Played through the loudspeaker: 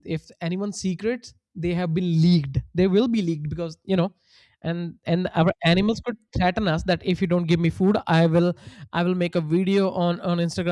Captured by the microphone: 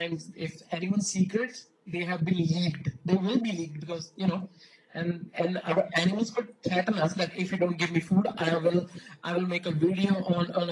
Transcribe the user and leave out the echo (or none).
none